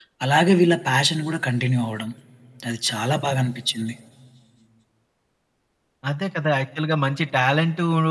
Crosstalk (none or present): none